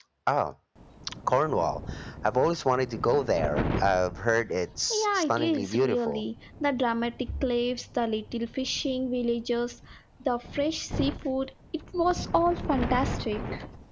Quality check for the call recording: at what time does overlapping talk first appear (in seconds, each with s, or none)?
4.9 s